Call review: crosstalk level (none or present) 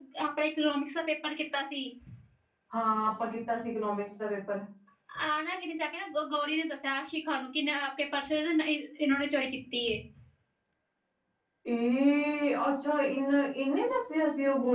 none